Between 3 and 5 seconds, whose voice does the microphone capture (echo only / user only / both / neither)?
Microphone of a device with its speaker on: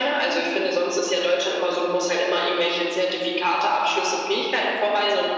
echo only